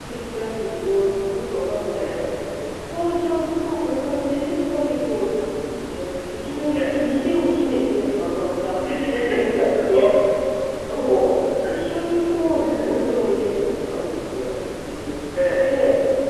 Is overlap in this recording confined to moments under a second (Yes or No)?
Yes